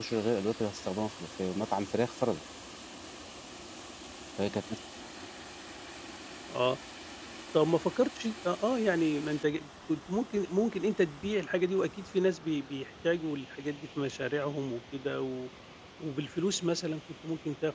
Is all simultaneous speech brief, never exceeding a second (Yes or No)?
Yes